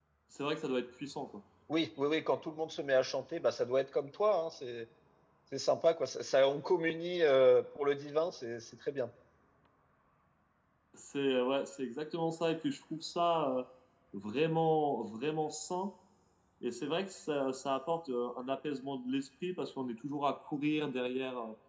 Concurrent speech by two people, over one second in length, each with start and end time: none

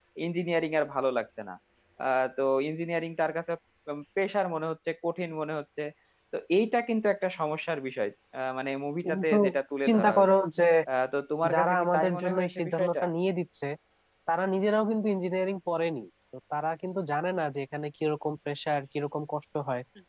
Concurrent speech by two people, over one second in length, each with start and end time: 11.5-12.9

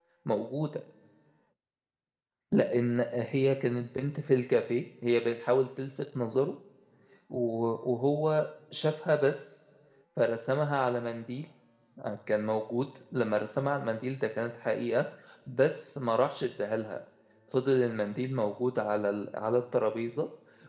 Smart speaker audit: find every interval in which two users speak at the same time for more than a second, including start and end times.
none

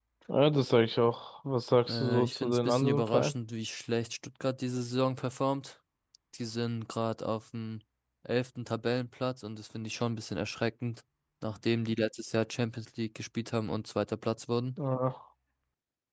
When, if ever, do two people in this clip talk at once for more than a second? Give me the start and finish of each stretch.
1.9-3.3

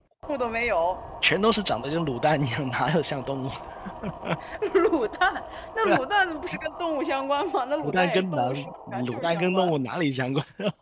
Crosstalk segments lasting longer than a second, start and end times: 7.8-9.7

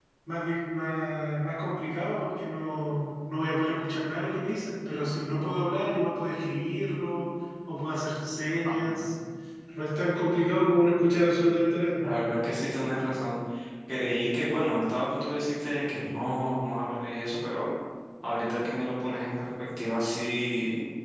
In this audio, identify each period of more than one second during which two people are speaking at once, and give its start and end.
none

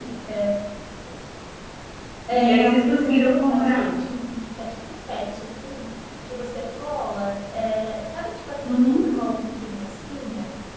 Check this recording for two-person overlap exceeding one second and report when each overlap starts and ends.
2.3-4.0

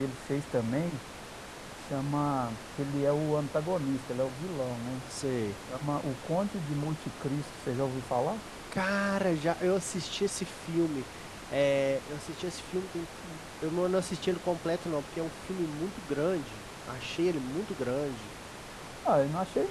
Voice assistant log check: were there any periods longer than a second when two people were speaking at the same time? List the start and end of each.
none

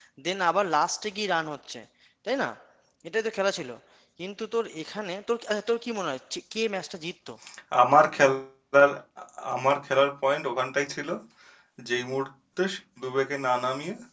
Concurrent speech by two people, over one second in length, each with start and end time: none

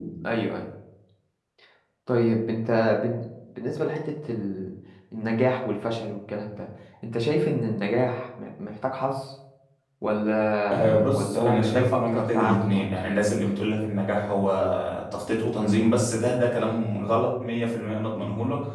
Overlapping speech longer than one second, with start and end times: 10.7-13.6

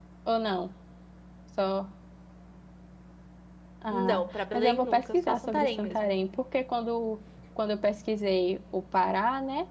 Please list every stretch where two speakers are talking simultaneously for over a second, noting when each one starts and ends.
3.9-6.1

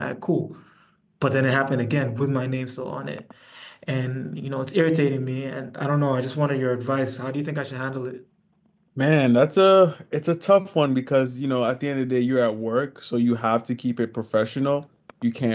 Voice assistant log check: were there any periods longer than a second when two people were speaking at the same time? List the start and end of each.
none

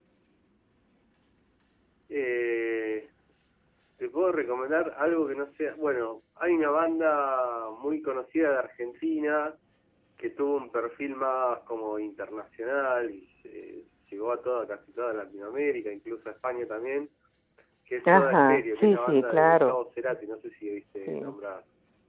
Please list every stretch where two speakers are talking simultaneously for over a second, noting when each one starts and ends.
18.1-19.8

